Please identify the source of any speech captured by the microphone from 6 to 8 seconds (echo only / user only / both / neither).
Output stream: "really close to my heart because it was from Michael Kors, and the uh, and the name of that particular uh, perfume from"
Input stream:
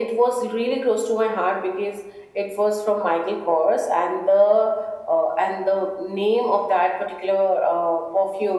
echo only